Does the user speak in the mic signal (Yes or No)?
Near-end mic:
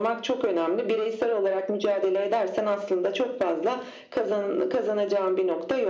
No